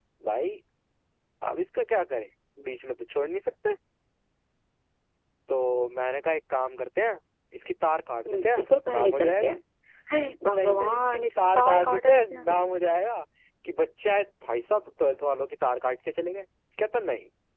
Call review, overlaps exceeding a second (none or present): present